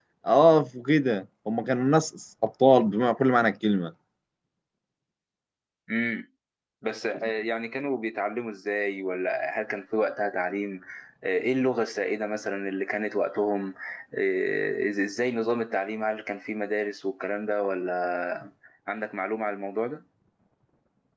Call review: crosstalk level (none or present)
none